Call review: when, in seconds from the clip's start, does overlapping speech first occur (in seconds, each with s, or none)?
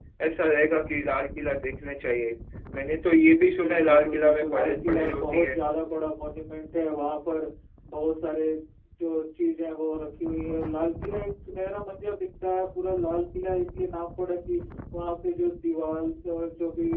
3.6 s